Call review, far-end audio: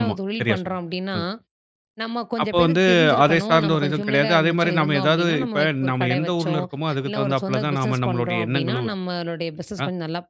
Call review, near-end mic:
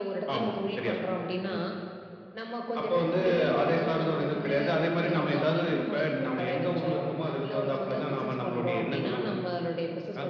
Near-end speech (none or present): none